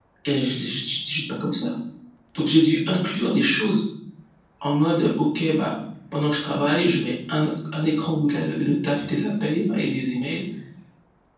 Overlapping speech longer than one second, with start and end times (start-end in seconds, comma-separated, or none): none